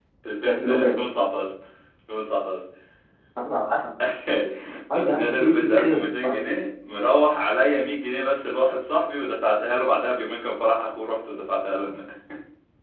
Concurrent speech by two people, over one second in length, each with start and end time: 5.1-6.4

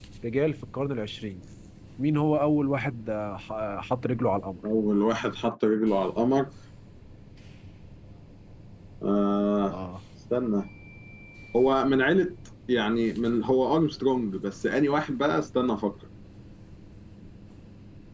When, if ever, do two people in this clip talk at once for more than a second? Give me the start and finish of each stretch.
none

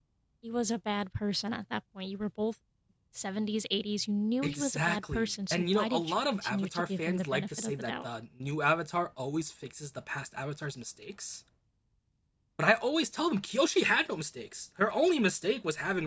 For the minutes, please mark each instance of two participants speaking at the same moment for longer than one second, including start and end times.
4.4-8.1

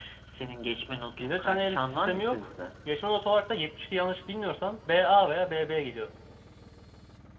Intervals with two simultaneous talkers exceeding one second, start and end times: 1.2-2.5

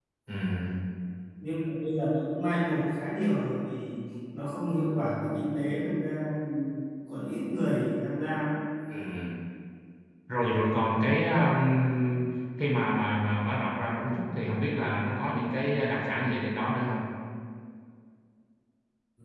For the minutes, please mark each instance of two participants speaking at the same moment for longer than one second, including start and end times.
none

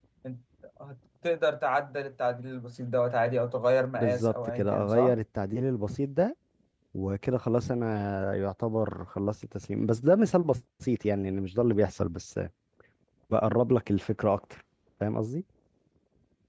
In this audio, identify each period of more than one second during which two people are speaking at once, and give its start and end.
4.0-5.2

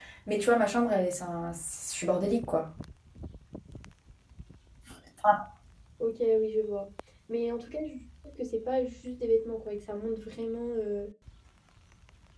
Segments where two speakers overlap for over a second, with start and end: none

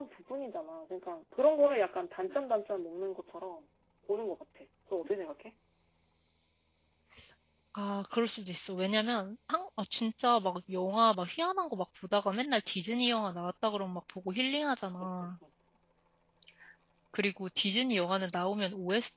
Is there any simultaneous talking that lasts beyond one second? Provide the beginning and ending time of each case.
none

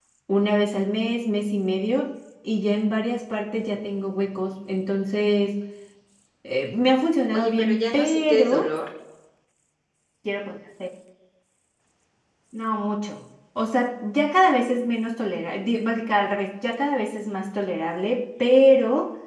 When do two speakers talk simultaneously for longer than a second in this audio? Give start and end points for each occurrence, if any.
7.3-8.7

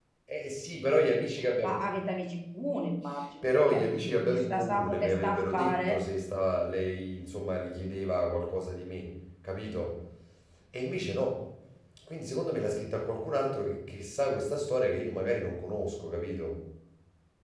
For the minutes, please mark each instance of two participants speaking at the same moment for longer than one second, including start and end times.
3.4-6.0

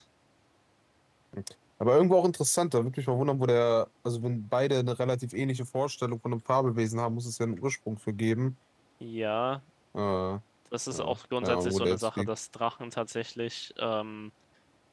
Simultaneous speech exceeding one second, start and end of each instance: 10.9-12.3

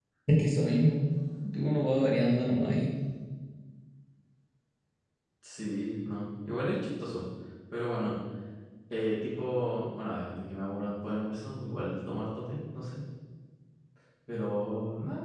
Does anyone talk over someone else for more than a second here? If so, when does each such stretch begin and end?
none

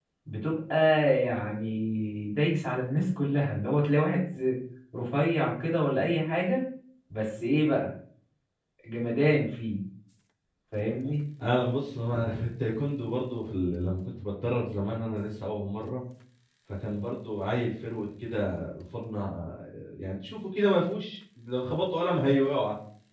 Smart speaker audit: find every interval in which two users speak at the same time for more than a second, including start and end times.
none

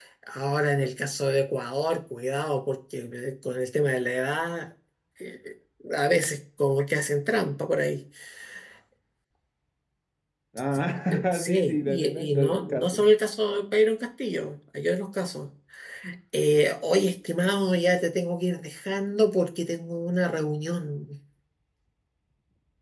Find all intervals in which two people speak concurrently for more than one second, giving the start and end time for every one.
11.1-13.0

